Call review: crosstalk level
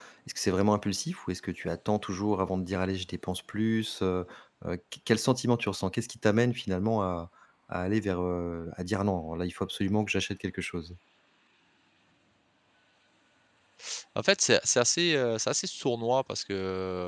none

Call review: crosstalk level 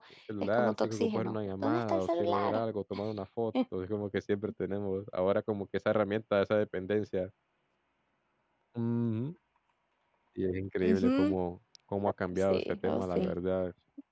present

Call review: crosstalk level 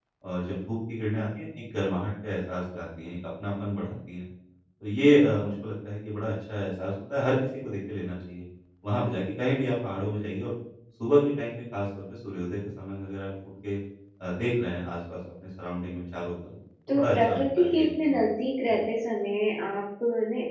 present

